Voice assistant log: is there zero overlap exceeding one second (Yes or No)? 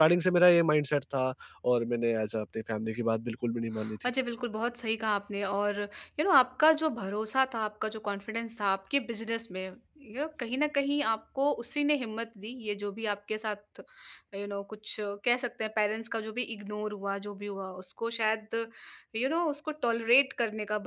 Yes